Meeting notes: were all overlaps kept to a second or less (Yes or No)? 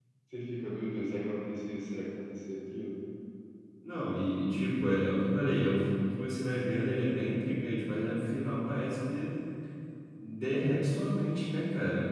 Yes